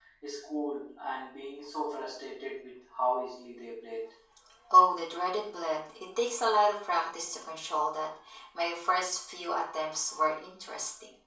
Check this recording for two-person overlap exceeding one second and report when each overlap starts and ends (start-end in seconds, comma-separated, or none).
none